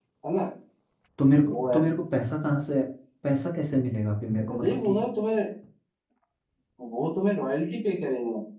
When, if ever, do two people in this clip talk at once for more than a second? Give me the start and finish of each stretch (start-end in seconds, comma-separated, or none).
none